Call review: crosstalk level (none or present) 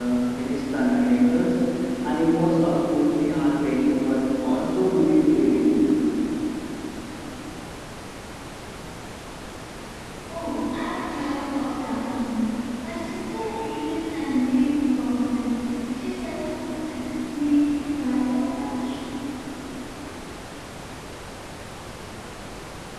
none